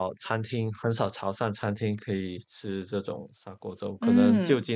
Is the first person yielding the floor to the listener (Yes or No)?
No